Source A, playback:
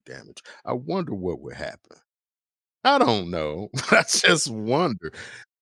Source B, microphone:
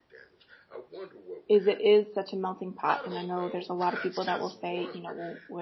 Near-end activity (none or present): present